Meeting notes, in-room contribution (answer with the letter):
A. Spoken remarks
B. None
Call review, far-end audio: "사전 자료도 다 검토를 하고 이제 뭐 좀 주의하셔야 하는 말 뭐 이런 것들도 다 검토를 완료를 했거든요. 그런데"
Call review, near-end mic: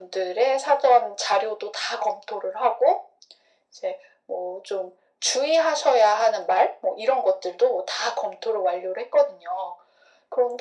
B